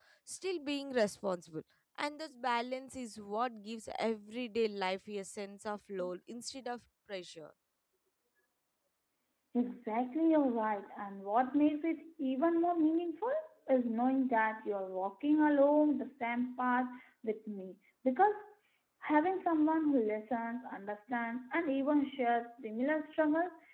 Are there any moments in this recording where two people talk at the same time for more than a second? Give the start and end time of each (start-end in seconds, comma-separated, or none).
none